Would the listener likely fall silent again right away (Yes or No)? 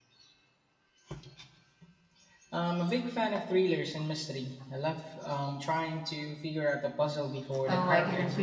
No